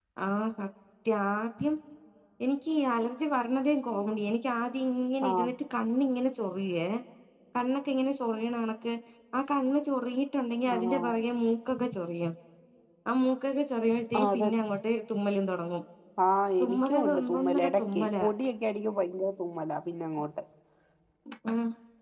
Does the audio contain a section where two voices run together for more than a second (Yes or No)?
Yes